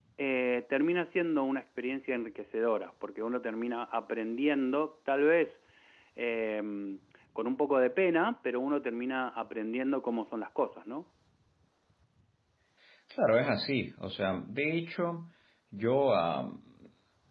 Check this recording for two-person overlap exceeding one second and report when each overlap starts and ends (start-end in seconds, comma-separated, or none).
none